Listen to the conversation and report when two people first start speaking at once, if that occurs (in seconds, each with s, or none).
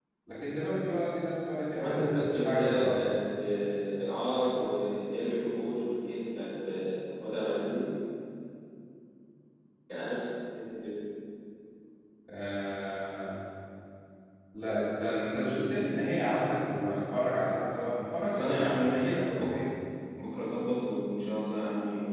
1.7 s